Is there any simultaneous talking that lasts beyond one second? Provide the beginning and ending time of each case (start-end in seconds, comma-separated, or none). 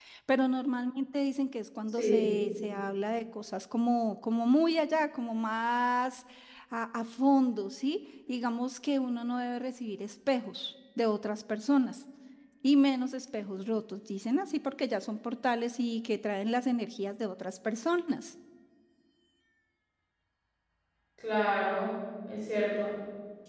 none